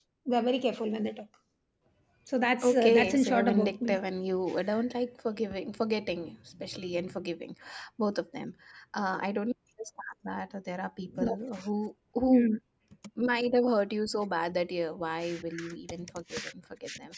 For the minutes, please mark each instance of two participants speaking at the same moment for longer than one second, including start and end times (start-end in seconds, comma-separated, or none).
2.6-4.0